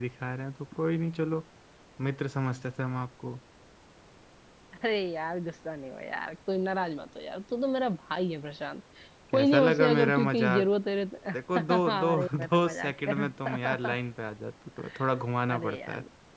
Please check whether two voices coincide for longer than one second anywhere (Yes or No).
Yes